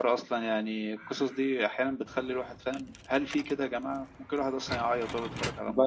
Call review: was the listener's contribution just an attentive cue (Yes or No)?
No